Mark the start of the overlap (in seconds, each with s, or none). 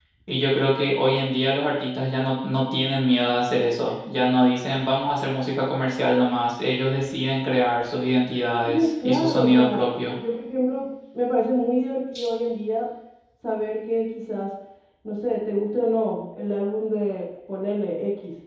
8.6 s